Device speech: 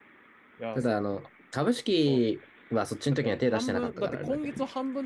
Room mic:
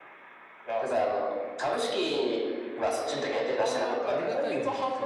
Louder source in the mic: echo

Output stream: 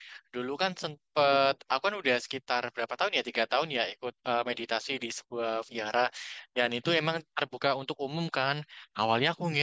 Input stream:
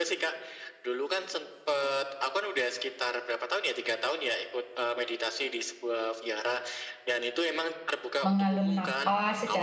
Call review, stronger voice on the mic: user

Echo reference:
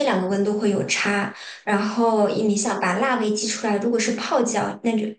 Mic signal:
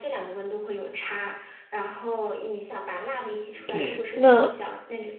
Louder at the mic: user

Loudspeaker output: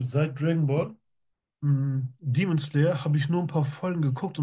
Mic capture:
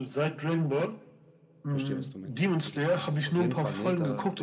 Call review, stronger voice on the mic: echo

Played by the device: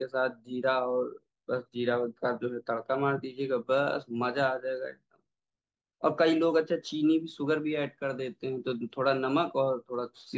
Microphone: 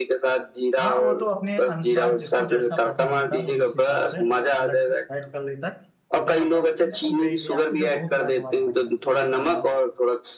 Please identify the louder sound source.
echo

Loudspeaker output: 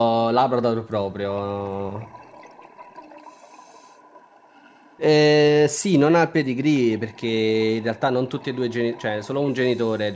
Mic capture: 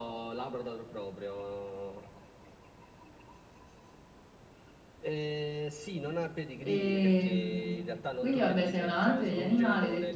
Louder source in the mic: user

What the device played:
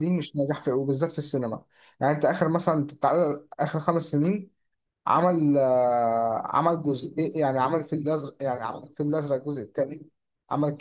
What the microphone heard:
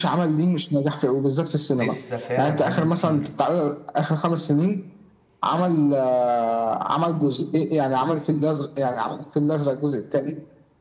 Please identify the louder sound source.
echo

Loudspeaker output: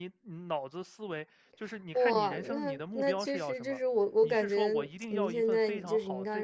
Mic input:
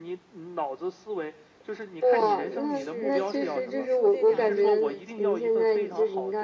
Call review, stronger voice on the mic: echo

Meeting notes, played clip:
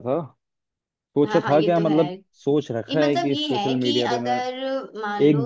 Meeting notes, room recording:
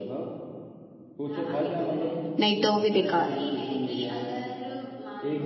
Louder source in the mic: user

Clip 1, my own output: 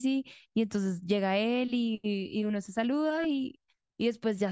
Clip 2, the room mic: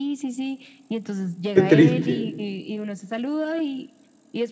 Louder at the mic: user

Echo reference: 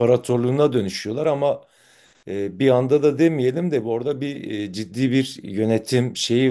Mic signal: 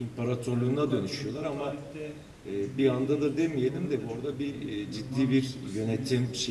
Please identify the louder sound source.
echo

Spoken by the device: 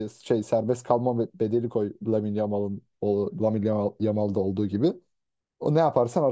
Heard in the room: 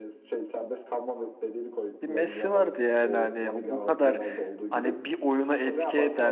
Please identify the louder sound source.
user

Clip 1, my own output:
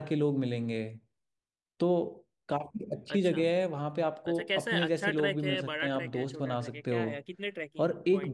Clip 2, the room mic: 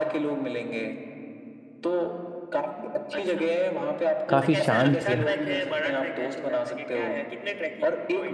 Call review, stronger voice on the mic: user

